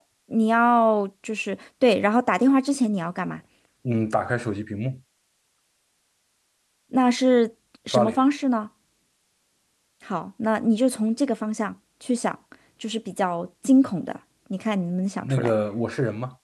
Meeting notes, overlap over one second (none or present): none